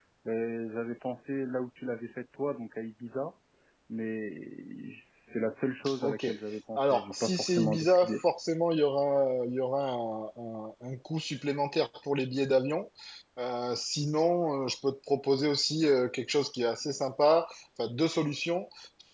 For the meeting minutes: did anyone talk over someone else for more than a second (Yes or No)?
Yes